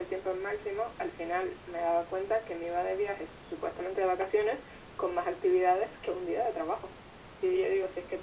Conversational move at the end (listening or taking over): listening